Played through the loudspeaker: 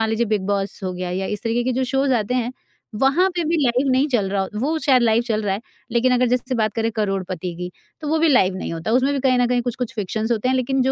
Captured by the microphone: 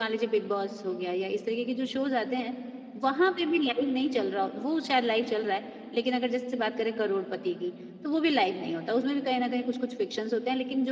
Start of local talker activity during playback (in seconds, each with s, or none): none